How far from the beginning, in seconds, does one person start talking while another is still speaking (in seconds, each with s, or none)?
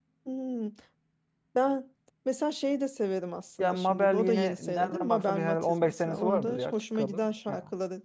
3.6 s